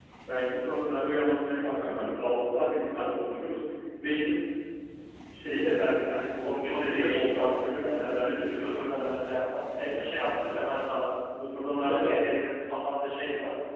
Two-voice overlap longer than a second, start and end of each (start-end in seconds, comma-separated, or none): 6.4-8.5